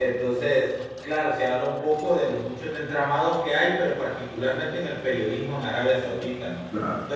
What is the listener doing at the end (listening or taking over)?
listening